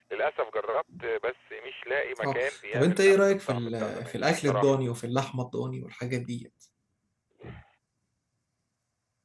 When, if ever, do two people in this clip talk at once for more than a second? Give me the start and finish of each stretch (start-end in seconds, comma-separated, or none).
2.2-4.8